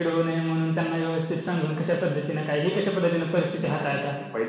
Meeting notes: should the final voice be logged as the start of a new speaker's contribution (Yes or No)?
Yes